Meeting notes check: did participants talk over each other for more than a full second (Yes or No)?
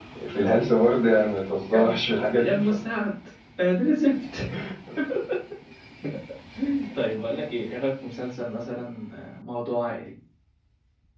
No